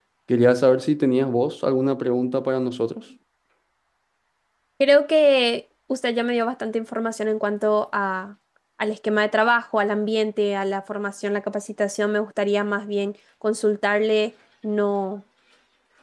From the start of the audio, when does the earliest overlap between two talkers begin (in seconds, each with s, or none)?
none